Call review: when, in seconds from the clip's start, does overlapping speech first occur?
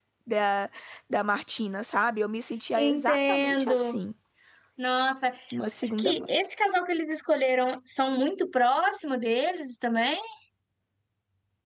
3 s

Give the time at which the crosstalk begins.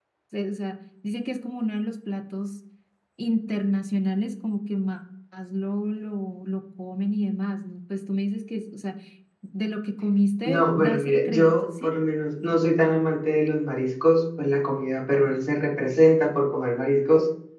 10 s

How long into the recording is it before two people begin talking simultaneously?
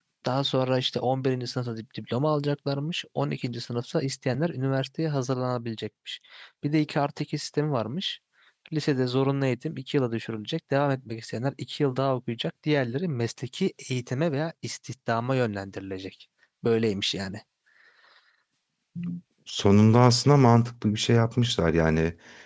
none

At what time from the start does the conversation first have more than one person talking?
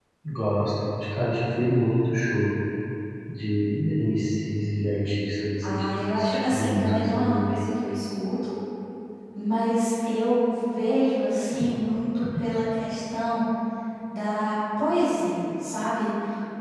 6 s

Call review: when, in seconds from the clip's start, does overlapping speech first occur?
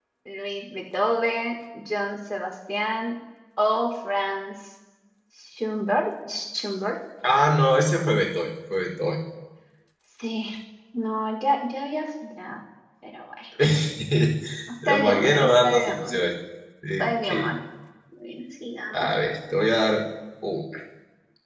15 s

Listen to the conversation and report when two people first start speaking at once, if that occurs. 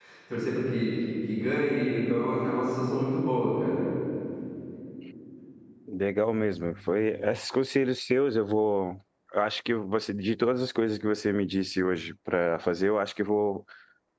none

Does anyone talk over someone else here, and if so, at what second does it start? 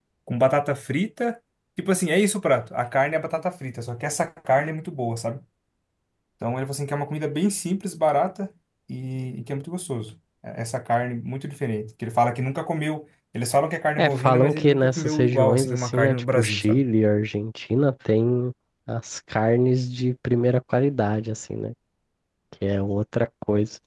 14 s

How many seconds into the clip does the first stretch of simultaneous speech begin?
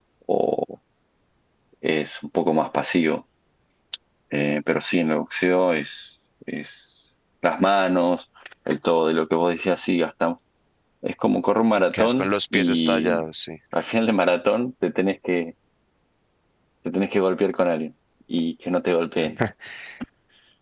12 s

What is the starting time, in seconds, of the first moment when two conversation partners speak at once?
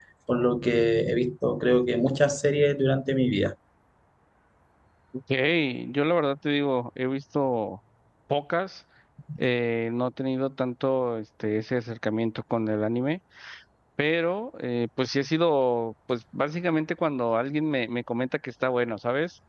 none

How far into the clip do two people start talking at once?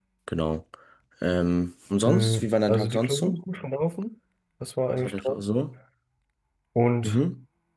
2 s

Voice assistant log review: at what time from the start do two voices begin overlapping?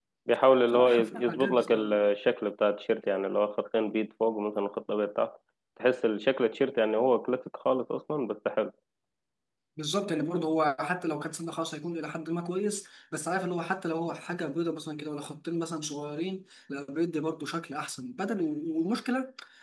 1 s

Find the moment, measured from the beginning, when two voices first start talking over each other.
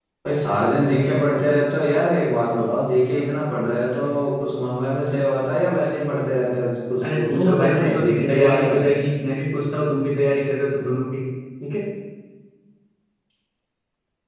7 s

